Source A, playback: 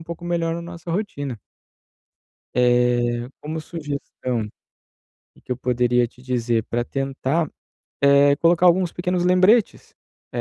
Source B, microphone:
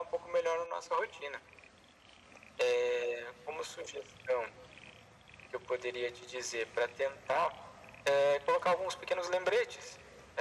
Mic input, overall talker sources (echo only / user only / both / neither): echo only